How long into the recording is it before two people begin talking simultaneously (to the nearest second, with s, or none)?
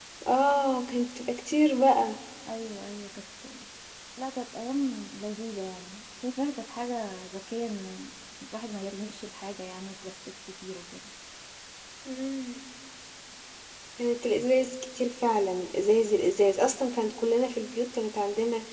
none